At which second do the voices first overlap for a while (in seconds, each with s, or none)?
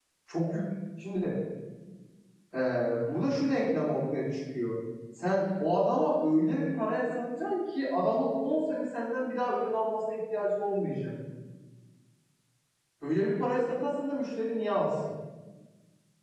none